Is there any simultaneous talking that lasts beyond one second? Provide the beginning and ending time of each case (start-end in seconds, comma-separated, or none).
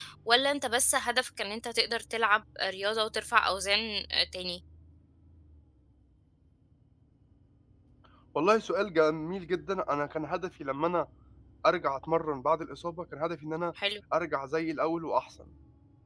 none